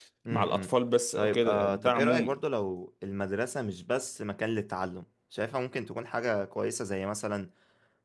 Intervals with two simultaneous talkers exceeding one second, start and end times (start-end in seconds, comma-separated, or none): 1.2-2.4